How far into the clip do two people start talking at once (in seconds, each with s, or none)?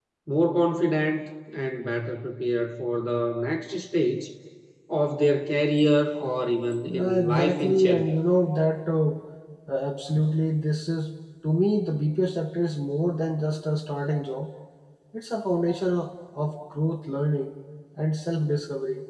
6.9 s